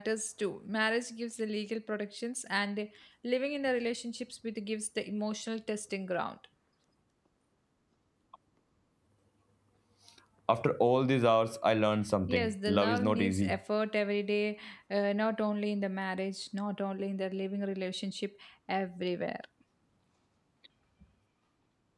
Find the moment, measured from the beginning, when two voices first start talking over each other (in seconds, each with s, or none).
12.3 s